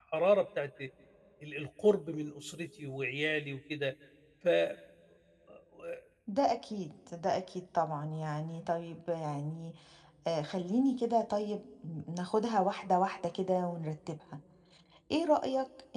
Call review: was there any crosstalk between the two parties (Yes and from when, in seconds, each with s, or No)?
No